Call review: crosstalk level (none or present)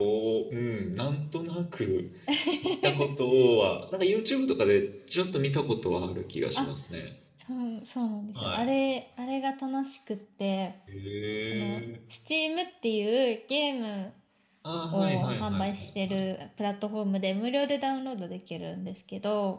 present